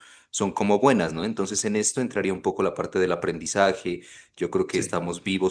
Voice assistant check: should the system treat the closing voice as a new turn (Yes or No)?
No